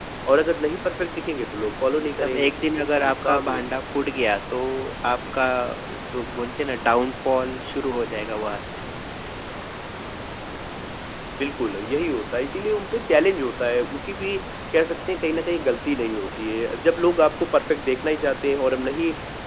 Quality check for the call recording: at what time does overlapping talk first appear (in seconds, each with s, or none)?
2.1 s